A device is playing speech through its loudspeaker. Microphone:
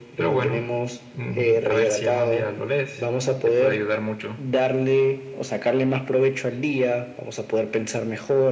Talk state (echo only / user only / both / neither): echo only